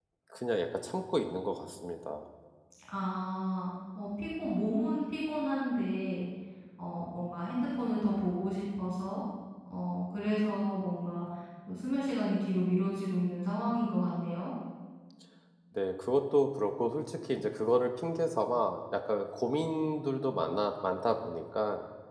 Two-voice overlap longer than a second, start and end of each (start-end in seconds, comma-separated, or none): none